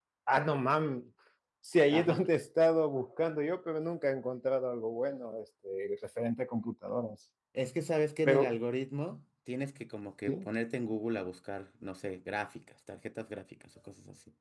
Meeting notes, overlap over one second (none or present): none